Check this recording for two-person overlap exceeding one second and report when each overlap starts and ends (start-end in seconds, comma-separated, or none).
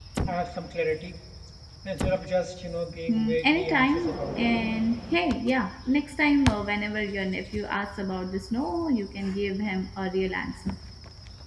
3.1-4.5